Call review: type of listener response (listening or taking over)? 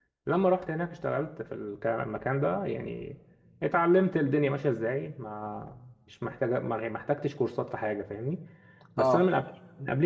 listening